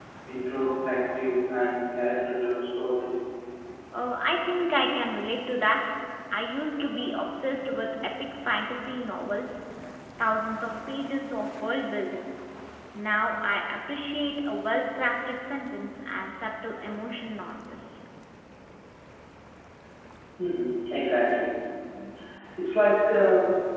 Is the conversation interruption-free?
Yes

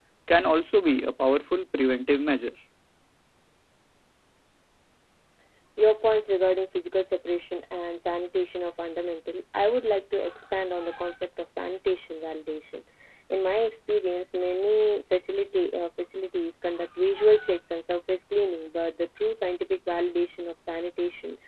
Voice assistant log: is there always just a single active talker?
Yes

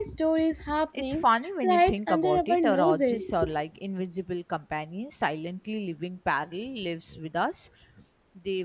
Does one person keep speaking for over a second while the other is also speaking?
Yes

